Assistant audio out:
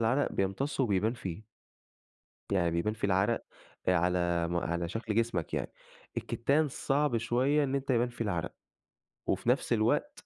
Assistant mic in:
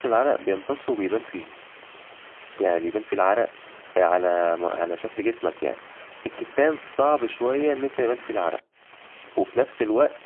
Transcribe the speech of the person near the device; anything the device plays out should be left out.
none

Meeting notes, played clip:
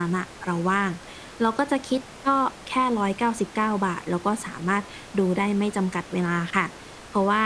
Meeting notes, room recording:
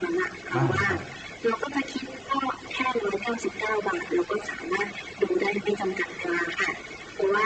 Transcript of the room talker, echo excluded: บ้างครับ

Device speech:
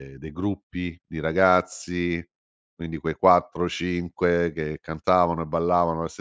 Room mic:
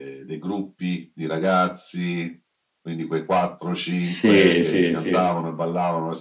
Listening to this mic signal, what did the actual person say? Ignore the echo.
Sì, sì, sì.

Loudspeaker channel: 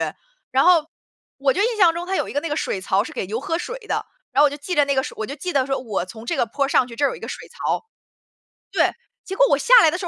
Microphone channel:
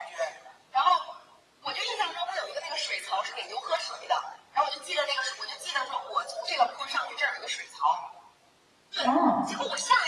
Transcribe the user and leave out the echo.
哦。

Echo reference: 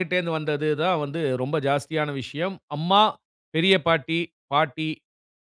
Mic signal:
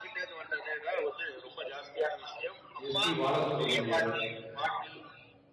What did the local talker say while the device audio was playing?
எஸ்பி பாலசுப்ரமணிய

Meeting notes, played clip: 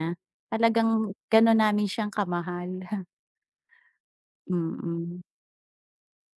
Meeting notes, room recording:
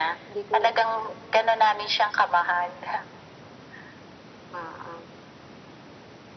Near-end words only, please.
hindi ko

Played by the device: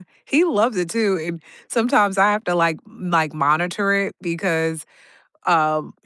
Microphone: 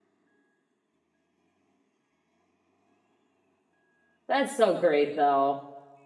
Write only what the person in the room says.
that's so great, though.

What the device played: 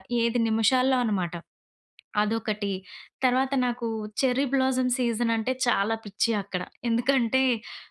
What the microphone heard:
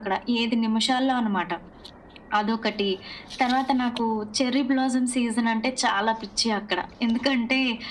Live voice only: none

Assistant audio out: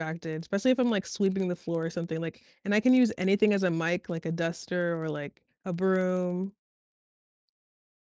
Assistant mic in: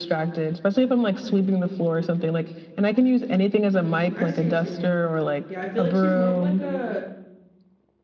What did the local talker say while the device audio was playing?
I see what you mean. Yeah, I feel, like, she's more of, like, a

